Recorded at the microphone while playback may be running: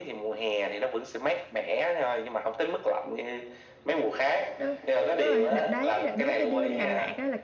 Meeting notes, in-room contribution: present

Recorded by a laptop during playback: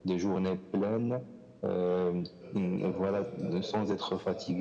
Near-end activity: present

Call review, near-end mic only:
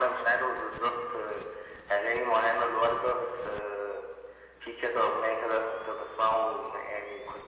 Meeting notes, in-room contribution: none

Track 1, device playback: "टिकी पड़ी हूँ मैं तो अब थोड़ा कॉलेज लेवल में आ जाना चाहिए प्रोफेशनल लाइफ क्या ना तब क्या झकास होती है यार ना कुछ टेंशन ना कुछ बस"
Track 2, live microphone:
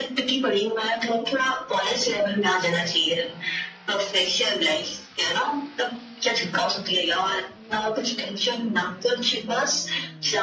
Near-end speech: none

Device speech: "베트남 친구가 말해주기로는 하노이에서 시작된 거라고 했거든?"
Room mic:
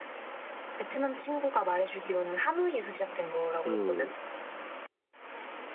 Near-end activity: present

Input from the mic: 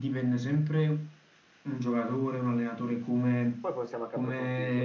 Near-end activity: present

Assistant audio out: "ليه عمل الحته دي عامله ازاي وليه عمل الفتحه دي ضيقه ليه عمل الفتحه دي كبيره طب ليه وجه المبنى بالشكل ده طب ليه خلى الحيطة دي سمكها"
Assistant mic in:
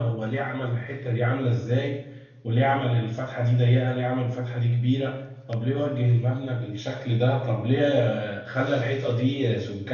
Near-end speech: none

